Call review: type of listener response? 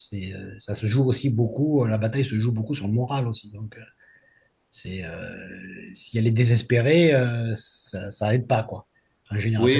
taking over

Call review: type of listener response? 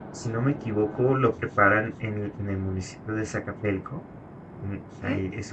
listening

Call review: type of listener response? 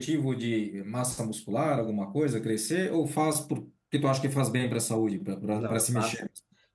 taking over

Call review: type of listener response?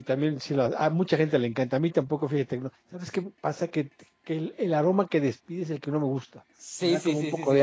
taking over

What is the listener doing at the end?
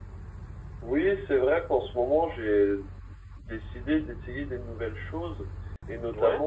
listening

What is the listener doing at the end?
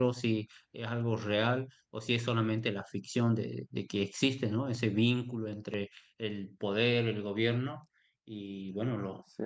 listening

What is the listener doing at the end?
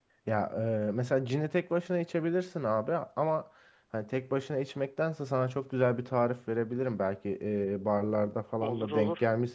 listening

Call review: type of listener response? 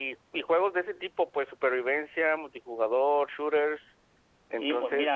taking over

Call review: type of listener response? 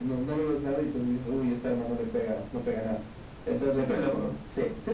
taking over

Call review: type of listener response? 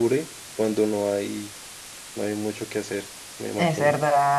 taking over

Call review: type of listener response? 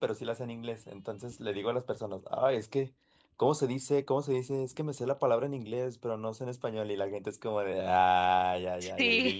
listening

